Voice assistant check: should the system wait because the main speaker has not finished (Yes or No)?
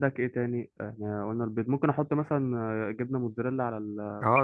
No